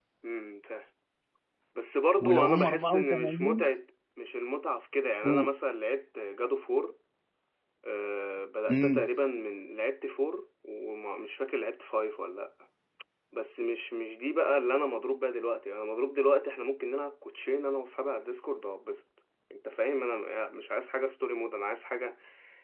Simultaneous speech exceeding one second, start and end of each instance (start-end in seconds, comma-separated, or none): 2.2-3.7